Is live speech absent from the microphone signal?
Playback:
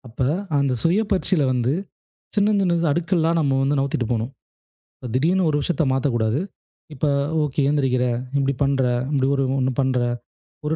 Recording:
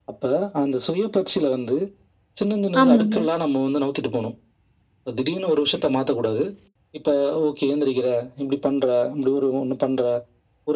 No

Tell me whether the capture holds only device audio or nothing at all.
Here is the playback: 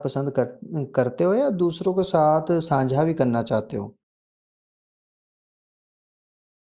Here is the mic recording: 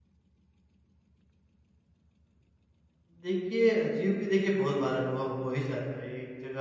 No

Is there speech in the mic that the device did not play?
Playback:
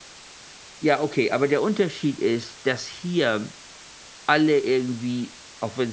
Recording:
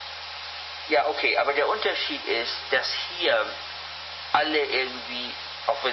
No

